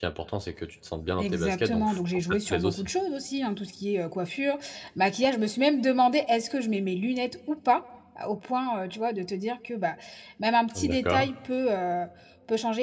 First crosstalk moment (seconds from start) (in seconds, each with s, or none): 1.2 s